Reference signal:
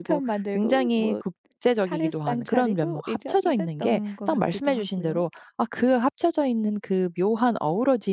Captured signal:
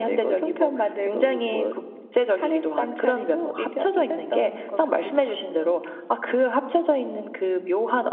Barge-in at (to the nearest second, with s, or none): none